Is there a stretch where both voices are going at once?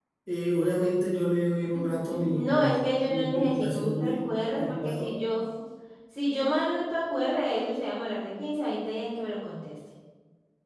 Yes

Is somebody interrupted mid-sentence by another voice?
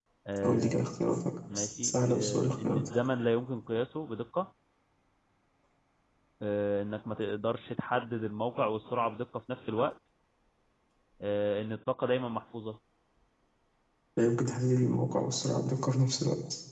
Yes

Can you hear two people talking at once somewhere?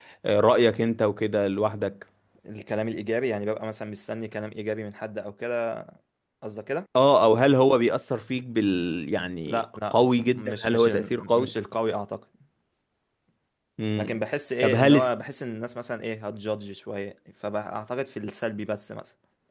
Yes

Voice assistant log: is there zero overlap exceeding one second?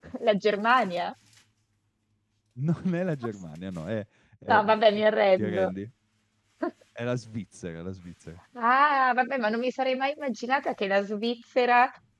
Yes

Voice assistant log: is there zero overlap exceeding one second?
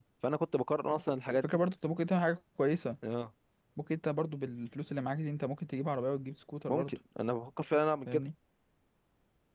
Yes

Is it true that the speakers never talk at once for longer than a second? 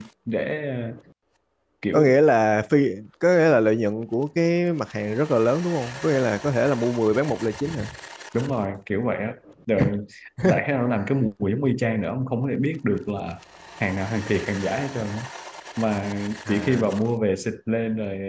Yes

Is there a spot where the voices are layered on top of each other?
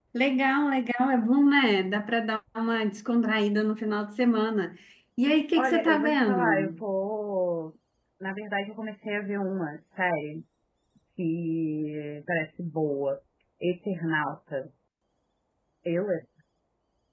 Yes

